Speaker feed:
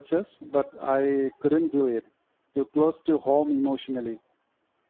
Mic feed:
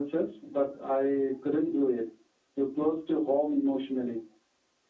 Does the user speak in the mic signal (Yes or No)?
No